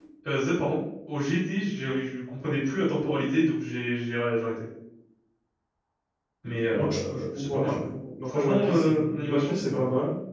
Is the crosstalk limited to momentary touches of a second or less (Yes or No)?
No